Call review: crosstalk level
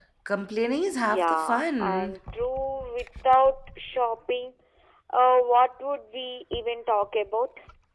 present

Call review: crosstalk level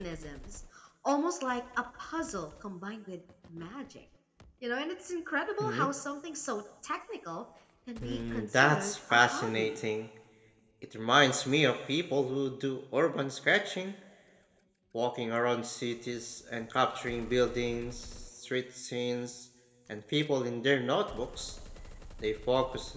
present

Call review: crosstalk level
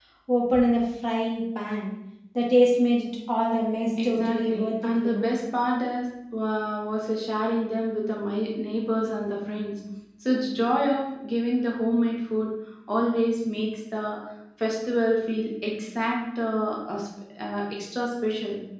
present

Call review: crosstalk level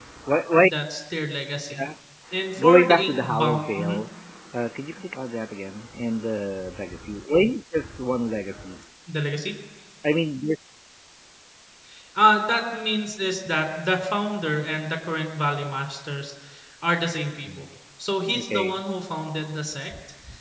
present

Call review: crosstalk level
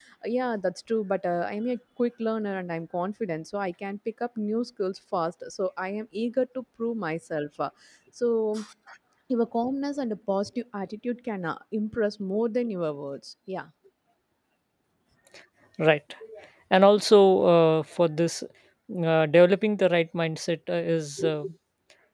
none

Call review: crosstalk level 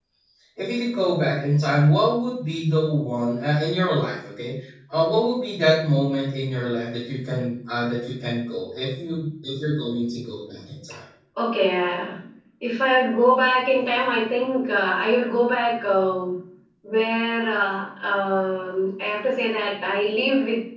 none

